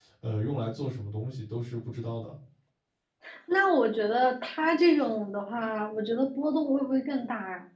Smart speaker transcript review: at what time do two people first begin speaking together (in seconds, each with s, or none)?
none